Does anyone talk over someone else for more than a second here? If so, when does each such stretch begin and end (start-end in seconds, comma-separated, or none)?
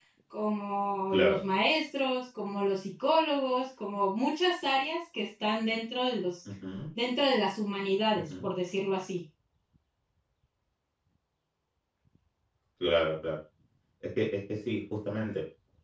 none